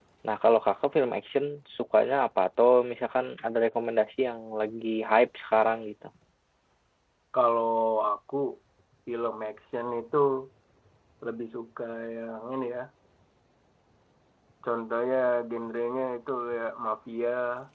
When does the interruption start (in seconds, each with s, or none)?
none